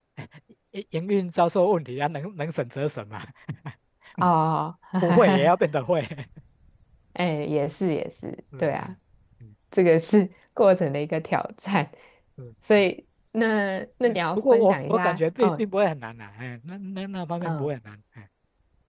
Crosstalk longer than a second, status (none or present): present